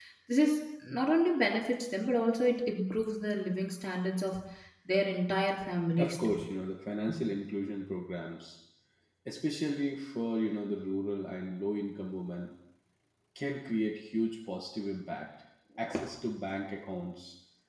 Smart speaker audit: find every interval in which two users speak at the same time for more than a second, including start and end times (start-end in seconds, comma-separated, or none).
none